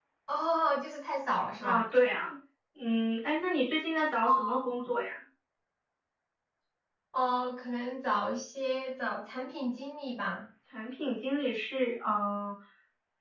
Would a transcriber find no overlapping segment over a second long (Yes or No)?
Yes